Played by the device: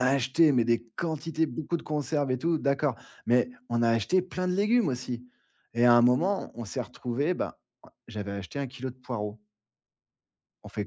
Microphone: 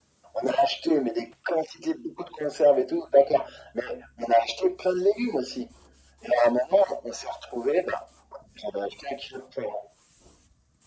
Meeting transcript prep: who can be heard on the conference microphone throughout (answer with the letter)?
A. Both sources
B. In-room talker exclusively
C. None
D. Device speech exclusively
D